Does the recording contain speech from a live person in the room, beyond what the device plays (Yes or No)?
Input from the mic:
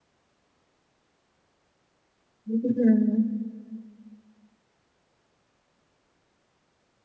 Yes